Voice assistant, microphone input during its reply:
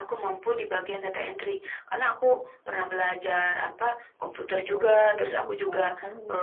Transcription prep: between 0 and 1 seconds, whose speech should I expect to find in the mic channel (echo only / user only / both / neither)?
echo only